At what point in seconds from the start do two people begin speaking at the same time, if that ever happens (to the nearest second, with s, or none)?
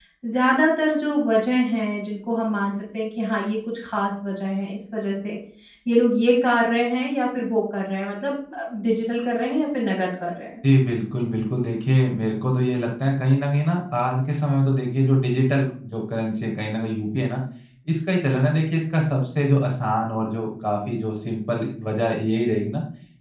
none